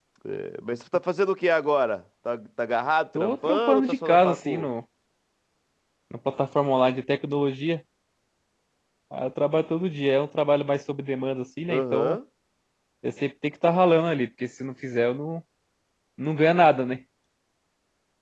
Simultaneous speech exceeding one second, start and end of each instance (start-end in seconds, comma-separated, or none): 3.1-4.7